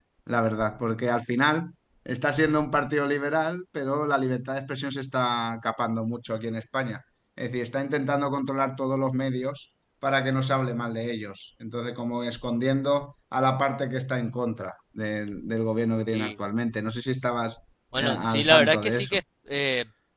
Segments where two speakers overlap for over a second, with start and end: 18.0-19.2

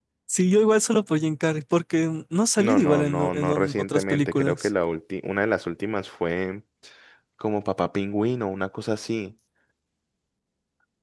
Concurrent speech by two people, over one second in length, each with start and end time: 2.6-4.7

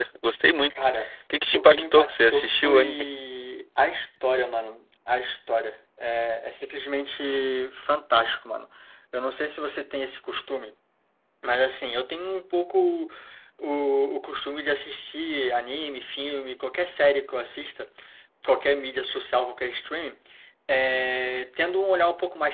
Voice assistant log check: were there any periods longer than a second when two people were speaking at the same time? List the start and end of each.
1.5-3.1

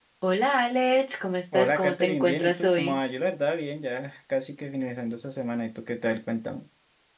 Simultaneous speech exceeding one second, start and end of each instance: 1.6-3.0

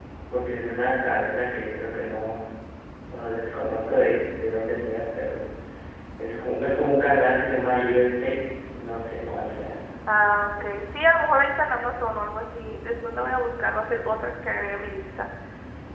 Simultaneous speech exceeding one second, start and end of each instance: none

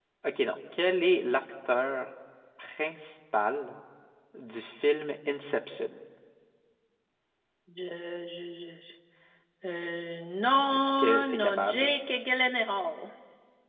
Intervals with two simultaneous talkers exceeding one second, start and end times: 10.7-12.0

